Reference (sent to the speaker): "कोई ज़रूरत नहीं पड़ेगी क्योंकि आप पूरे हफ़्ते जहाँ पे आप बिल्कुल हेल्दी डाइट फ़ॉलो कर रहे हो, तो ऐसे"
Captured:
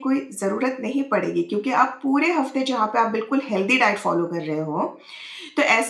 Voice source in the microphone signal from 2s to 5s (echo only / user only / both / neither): echo only